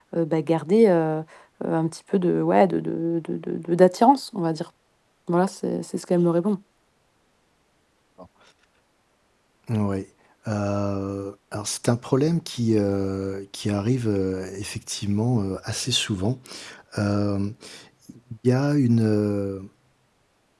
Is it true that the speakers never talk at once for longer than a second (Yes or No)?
Yes